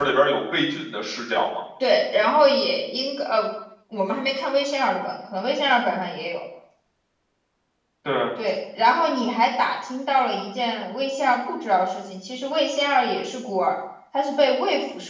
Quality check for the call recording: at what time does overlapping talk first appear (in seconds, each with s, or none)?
none